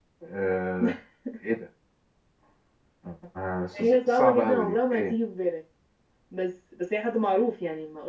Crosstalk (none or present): present